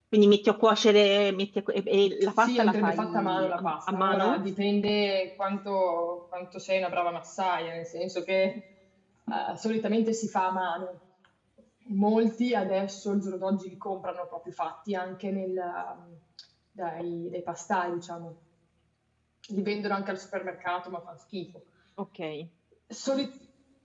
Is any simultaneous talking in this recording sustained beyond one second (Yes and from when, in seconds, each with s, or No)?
Yes, from 2.4 s